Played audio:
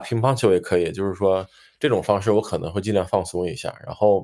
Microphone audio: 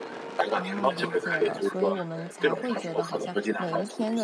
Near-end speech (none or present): present